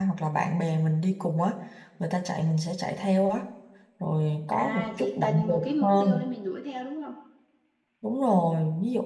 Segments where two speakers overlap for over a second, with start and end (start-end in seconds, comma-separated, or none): 4.5-6.2